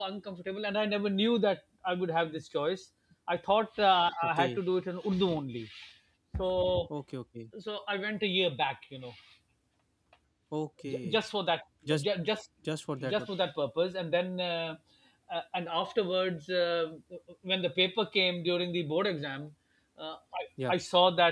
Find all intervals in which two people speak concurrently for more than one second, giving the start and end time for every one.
none

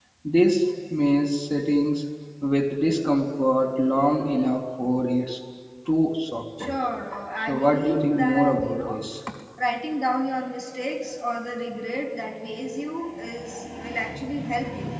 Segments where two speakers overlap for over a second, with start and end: 7.4-9.0

